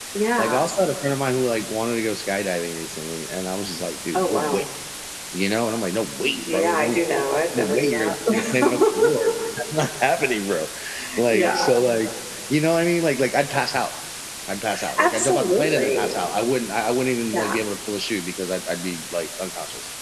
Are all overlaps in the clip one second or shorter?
No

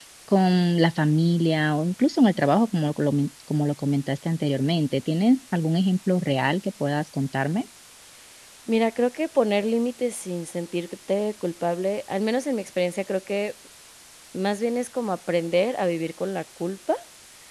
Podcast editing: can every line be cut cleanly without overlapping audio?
Yes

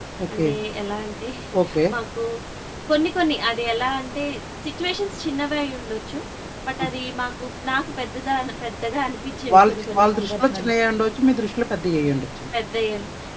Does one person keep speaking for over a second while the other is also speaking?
Yes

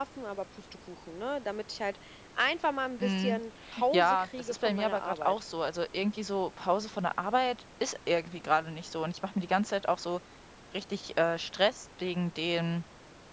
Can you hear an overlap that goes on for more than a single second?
Yes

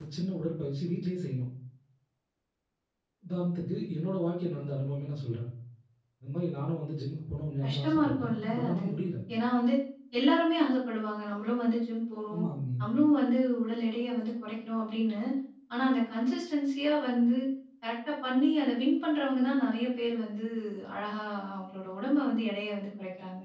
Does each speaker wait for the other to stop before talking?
No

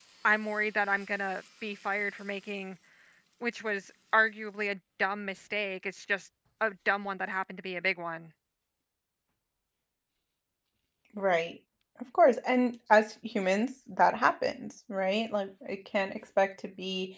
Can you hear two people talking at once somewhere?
No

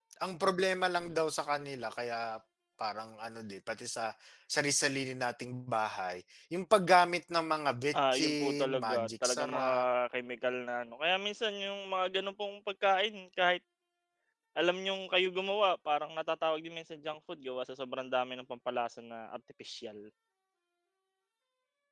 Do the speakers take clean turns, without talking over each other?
No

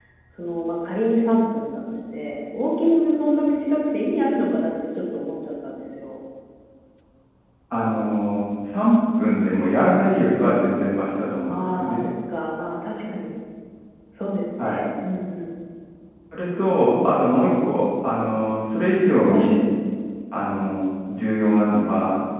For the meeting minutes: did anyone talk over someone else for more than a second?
No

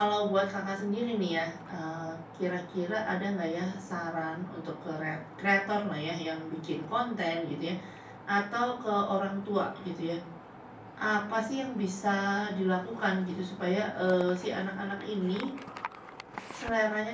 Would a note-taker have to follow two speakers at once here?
No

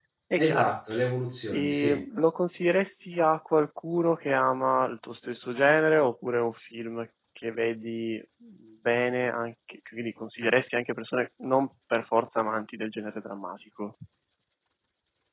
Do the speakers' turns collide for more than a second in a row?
No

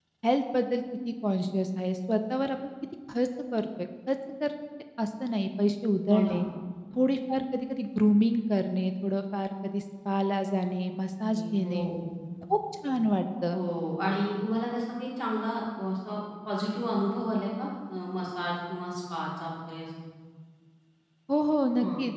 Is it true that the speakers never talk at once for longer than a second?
Yes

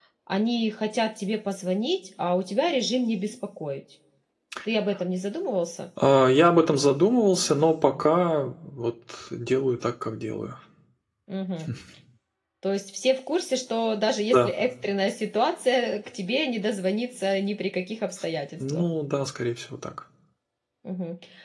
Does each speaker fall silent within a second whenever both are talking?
Yes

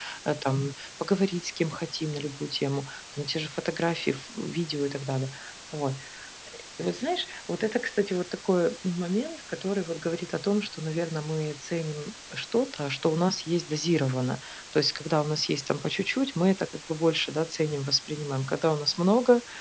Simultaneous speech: No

